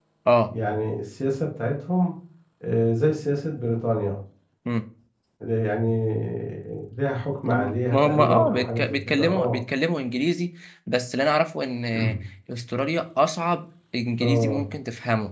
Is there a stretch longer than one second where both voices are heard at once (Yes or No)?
Yes